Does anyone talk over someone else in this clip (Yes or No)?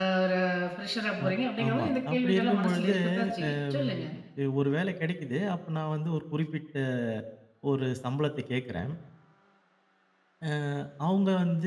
Yes